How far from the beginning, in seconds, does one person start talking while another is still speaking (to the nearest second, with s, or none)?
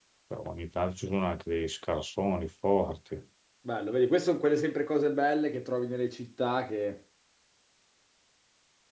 none